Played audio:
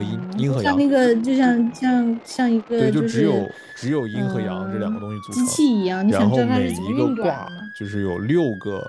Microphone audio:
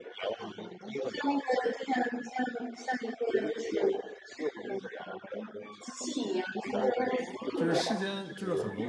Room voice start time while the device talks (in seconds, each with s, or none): 7.5 s